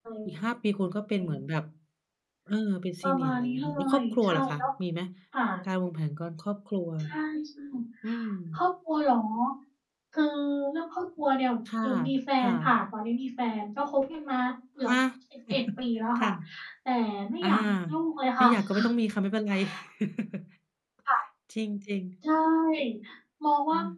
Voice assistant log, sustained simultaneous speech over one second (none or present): present